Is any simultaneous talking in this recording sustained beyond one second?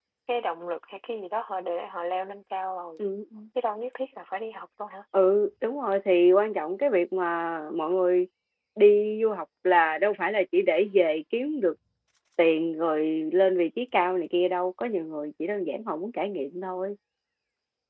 No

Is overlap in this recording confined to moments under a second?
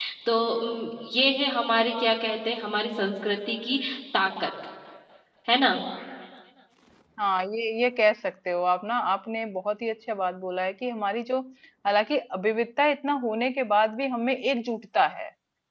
Yes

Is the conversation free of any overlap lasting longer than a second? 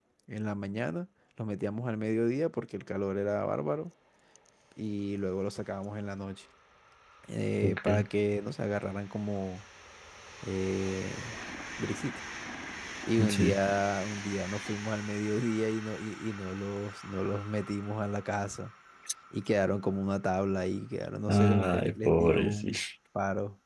No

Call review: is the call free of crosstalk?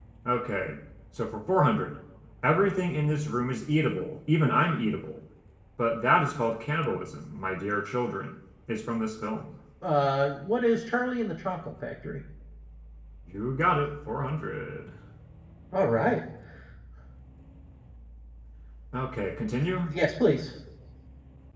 Yes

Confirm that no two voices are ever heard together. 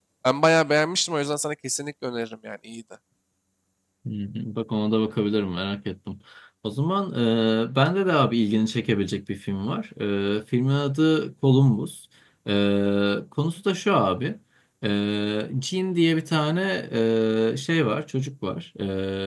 Yes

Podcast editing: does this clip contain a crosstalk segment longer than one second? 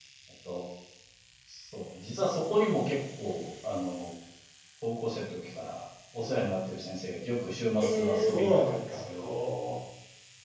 Yes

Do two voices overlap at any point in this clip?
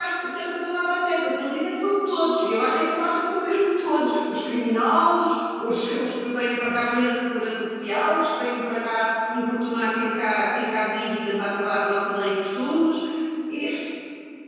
No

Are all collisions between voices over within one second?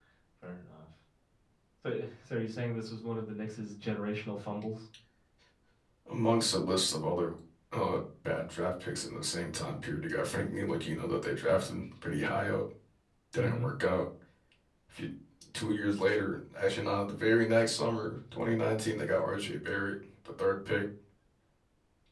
Yes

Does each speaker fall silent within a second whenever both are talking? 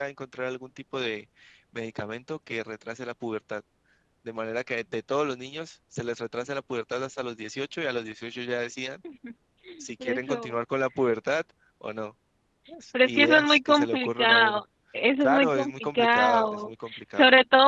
No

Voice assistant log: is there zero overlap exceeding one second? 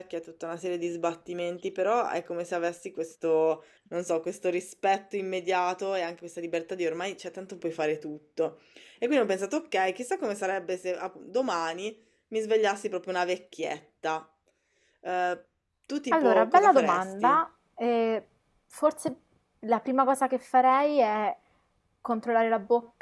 No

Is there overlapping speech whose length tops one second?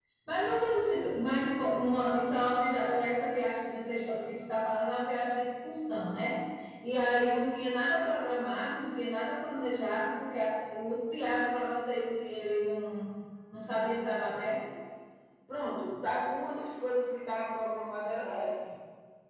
No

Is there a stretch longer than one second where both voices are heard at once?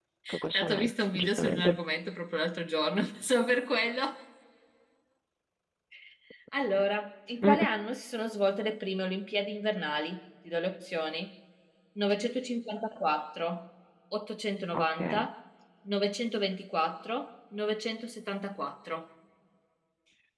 Yes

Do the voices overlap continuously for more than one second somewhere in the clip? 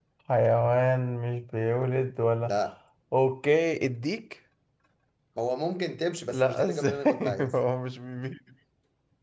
Yes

